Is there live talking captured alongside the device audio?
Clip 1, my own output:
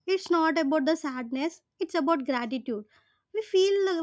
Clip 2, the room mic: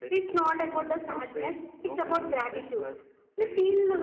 Yes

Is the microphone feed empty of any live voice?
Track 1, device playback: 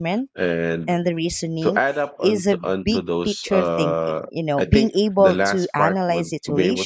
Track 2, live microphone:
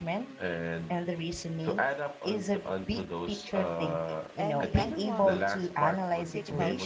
No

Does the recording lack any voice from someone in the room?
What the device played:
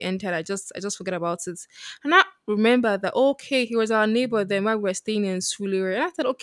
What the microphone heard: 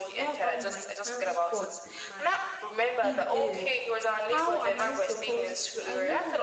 No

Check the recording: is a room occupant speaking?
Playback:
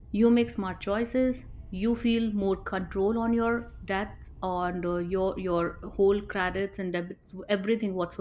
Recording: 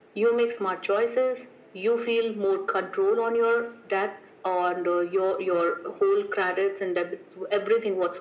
No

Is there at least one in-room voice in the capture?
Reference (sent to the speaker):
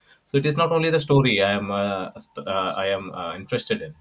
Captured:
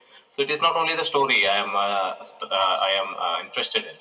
No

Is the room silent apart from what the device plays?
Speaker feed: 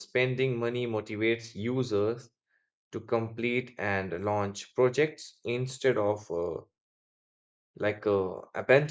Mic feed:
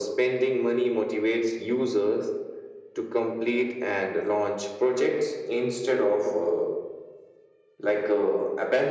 Yes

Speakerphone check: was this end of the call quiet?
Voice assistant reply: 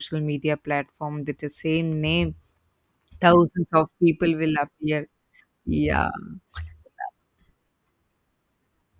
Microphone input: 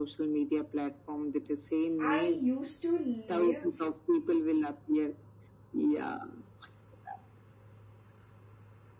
No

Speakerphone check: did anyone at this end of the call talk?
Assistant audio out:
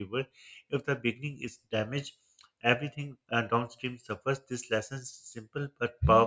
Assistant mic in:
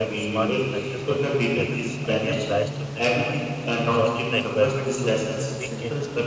Yes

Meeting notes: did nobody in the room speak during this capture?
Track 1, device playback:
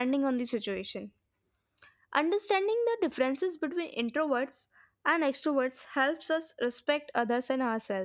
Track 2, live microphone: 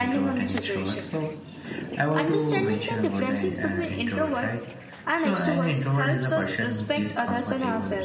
No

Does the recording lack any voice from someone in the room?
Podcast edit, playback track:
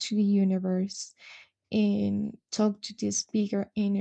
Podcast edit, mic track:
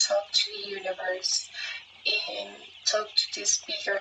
Yes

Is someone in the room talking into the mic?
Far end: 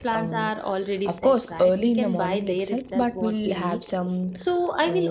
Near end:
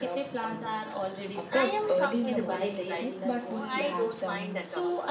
Yes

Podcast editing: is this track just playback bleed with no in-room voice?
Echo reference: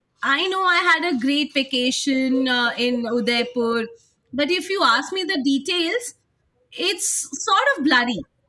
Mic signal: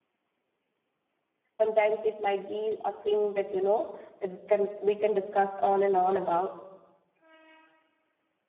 No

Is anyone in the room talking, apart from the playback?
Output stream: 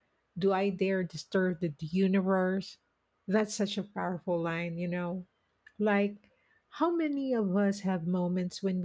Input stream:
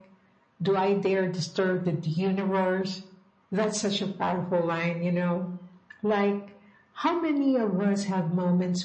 No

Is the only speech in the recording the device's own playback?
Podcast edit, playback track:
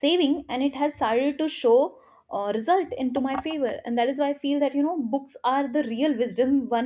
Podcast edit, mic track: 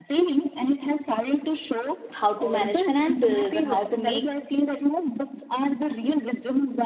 No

